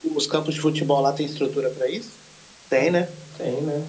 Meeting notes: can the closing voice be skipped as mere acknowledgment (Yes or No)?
No